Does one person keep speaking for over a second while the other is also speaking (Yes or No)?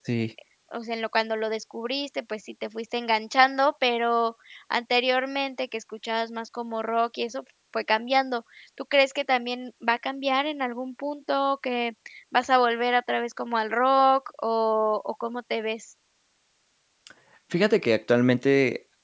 No